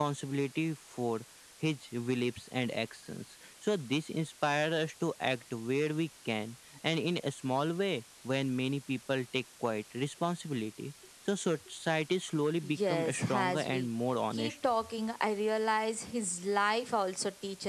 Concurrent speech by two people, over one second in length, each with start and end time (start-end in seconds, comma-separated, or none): 12.6-13.9